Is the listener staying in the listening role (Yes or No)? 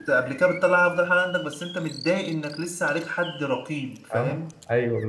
No